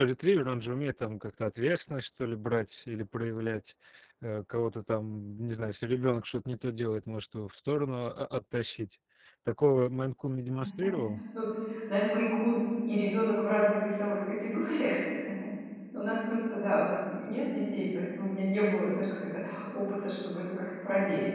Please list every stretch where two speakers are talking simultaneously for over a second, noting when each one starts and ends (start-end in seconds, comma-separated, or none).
none